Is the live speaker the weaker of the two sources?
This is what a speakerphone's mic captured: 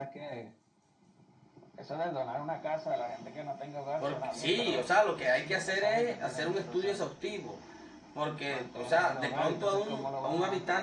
No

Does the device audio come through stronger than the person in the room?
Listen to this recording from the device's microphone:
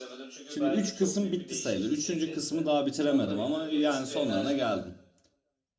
No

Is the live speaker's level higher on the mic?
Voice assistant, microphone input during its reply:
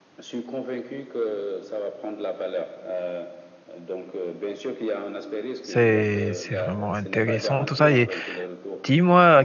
Yes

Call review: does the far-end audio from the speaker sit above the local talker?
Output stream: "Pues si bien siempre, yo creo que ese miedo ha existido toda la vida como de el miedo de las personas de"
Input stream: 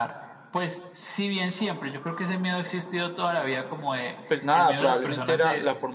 No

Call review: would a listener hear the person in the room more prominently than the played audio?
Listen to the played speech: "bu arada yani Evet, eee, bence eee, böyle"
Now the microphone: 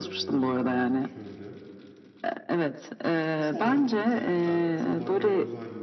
No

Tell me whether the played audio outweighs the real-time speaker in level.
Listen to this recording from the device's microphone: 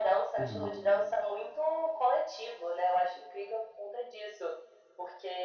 Yes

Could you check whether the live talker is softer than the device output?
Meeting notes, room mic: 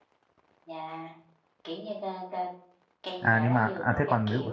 No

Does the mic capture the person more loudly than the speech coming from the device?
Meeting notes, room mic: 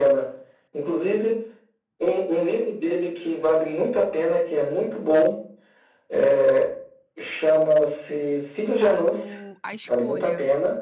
No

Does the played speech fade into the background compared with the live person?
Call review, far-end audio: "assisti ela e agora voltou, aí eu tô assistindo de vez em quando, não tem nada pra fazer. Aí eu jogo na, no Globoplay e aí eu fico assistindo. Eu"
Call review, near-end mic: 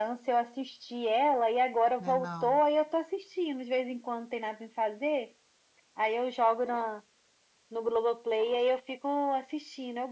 No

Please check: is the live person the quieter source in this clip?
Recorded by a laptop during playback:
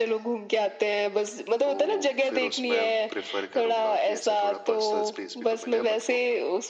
Yes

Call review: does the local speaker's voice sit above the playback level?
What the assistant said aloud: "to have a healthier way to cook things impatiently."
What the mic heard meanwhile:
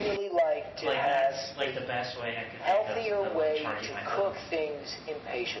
No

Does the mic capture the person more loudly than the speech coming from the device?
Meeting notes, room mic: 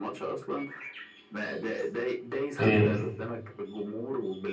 Yes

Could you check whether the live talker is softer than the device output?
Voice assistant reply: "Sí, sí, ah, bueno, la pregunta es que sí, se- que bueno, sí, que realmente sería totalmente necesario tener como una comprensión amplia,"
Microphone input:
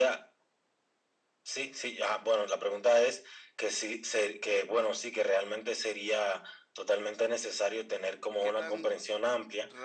Yes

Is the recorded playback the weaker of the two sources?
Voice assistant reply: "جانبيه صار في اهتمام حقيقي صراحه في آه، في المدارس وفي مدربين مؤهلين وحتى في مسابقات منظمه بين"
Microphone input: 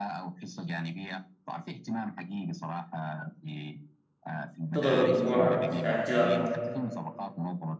Yes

